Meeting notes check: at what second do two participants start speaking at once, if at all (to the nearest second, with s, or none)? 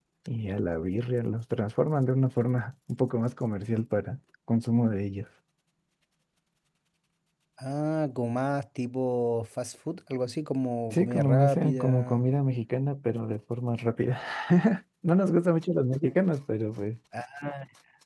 11 s